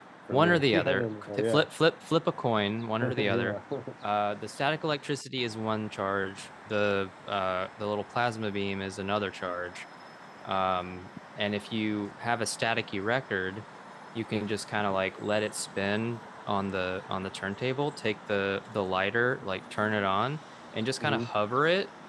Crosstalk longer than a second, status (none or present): present